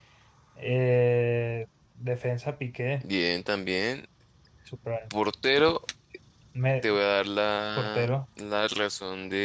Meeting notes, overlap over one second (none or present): none